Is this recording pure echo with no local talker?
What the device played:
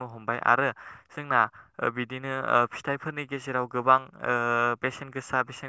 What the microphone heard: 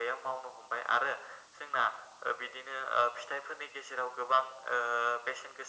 Yes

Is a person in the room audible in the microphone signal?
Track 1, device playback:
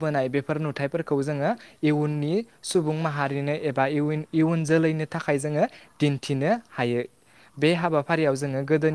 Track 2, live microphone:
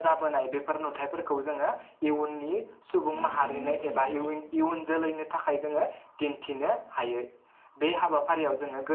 Yes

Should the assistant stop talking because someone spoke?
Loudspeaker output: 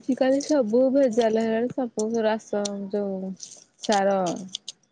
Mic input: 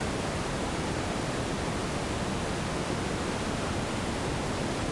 No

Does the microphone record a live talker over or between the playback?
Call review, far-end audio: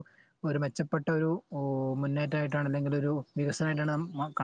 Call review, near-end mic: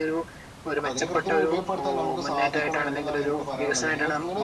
Yes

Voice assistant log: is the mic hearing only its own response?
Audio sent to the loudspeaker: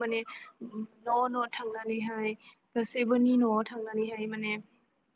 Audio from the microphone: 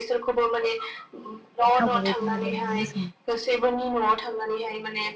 No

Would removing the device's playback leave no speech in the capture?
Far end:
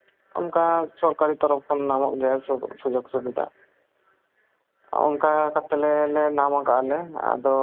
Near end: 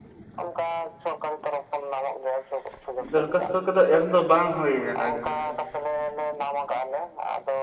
No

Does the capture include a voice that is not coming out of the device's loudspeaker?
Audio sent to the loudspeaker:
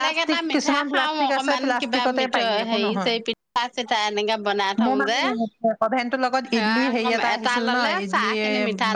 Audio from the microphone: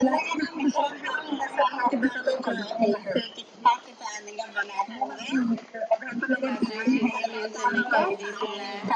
Yes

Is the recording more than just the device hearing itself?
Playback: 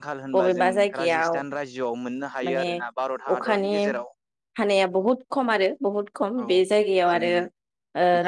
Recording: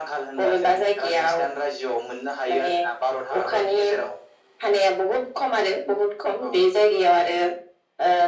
No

